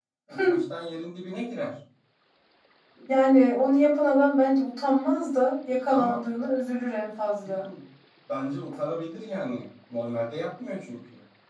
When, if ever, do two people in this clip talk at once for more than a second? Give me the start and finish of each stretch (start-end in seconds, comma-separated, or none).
none